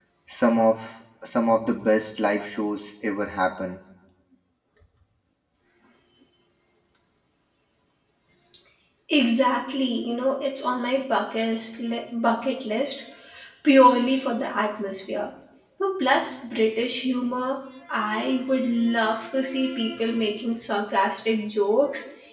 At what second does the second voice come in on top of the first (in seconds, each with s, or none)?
none